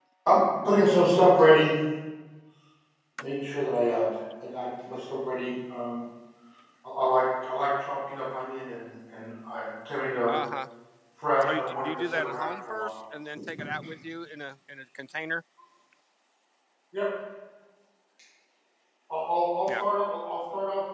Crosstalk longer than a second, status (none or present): present